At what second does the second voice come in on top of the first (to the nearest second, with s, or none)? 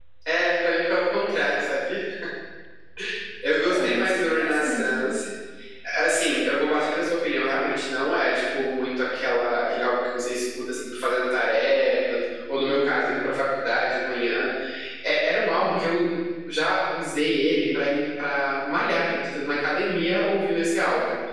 3 s